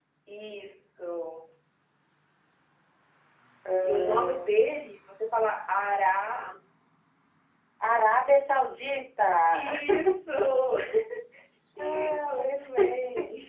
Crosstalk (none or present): present